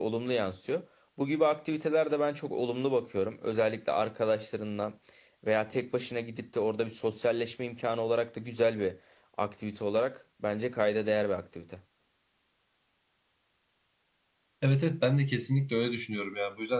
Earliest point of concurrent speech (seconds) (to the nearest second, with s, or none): none